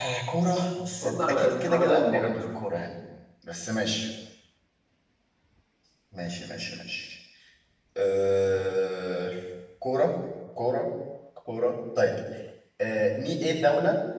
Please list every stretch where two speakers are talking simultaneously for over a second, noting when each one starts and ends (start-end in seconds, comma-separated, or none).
1.0-2.4